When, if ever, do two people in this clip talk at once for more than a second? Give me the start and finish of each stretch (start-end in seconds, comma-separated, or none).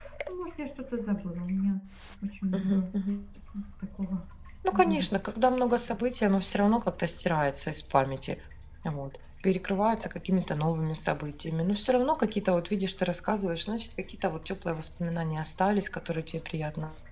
none